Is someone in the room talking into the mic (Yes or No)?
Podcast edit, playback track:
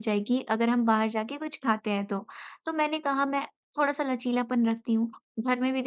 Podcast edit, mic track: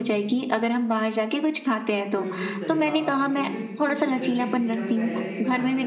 Yes